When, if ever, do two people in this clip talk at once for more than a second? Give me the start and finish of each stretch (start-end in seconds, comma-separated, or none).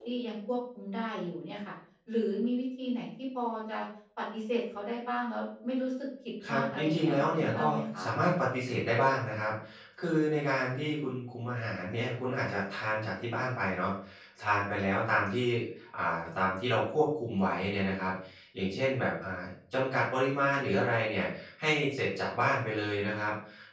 6.5-8.0